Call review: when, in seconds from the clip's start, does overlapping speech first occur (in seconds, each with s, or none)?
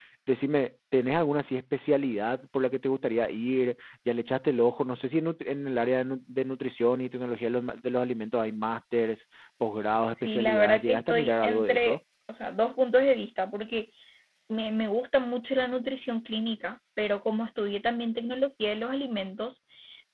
10.1 s